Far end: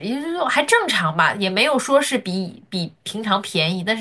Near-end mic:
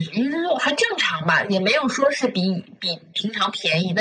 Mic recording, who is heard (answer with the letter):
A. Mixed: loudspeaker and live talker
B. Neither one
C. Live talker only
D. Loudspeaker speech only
D